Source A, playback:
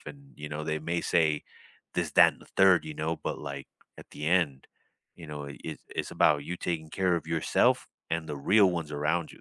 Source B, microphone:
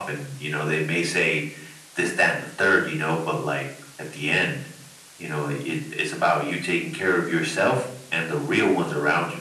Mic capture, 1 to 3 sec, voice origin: echo only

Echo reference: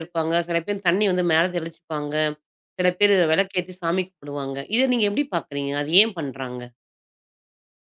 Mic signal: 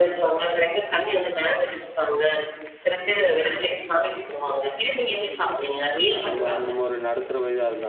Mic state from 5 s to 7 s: both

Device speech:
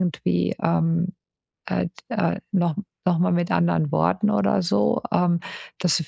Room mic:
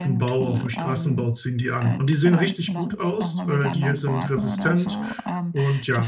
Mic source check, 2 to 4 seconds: both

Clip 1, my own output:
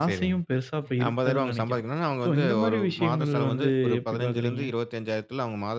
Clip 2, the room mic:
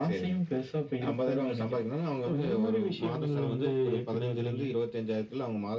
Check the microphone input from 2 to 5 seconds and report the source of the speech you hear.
echo only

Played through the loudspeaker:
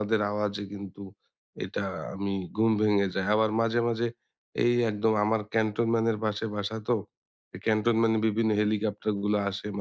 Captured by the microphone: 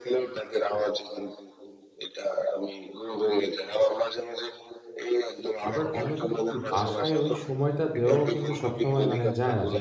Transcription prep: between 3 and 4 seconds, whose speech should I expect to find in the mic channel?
echo only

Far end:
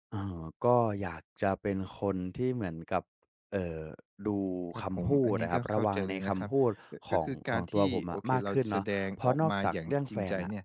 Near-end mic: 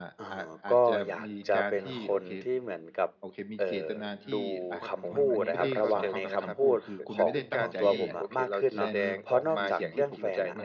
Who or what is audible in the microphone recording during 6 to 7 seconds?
both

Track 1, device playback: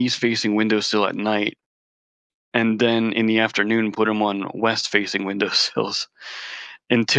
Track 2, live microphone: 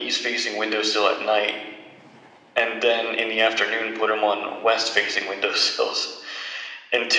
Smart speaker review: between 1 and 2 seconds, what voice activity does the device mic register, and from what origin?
echo only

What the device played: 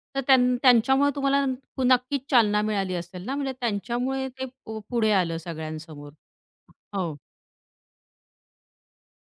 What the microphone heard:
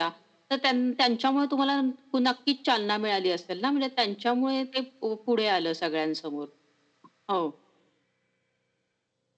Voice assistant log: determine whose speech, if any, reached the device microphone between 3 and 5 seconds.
echo only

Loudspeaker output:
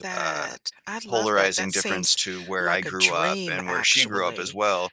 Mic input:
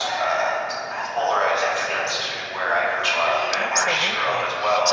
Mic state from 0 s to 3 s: echo only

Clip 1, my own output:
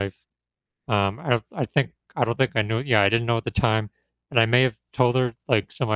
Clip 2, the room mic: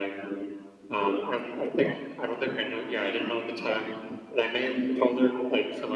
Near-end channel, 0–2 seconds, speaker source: echo only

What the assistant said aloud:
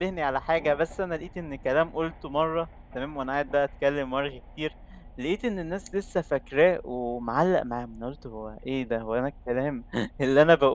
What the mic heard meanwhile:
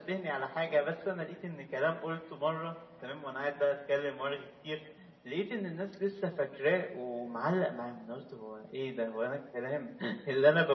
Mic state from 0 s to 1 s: echo only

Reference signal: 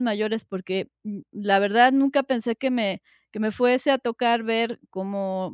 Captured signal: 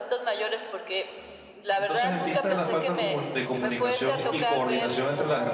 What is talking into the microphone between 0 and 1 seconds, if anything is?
echo only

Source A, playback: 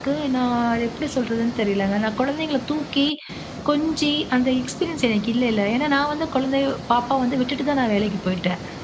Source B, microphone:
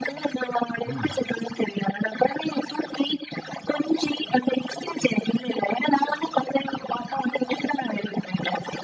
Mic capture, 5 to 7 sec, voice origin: echo only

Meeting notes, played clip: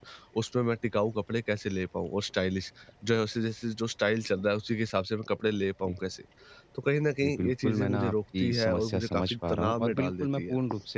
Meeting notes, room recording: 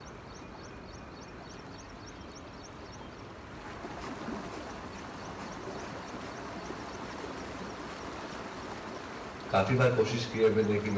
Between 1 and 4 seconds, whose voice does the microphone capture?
neither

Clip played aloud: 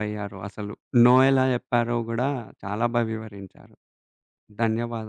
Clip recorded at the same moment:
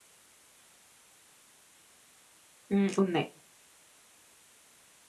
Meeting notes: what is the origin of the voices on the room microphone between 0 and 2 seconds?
neither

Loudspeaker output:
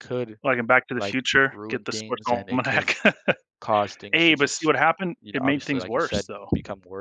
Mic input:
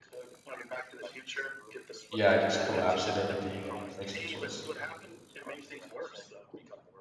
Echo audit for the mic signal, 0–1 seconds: echo only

